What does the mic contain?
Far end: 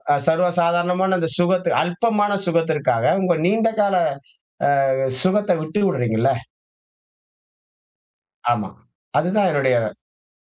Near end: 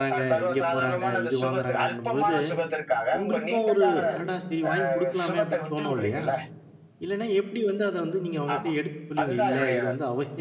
both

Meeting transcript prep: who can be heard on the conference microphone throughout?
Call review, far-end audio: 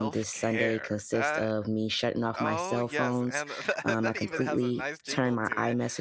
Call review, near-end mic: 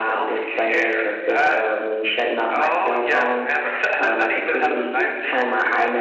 echo only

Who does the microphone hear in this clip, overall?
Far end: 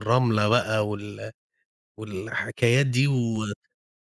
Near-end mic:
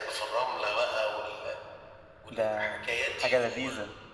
both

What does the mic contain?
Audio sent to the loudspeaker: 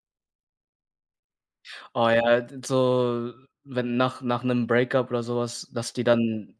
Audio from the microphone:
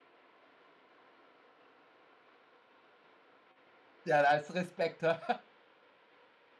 user only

